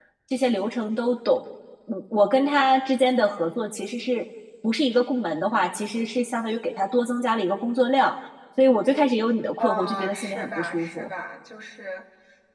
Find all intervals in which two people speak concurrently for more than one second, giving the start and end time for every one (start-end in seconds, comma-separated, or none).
9.6-11.1